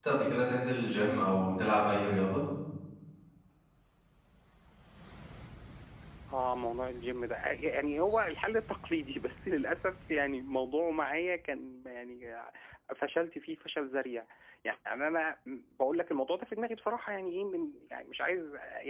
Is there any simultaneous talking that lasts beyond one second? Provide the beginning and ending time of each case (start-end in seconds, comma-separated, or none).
none